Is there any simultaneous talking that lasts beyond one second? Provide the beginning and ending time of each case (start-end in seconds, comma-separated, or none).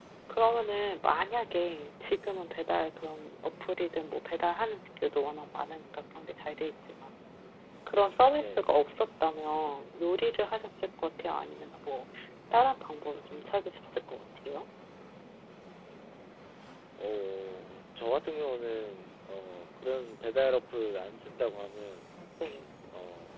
none